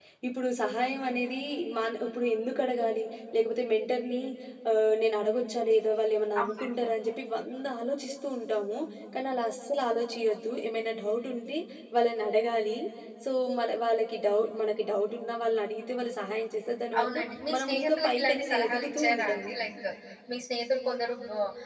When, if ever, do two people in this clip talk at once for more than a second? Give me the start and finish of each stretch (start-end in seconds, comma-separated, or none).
17.5-19.5